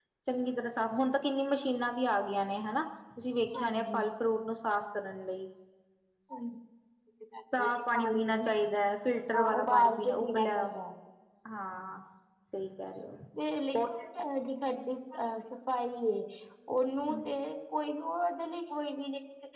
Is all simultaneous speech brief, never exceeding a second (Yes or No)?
No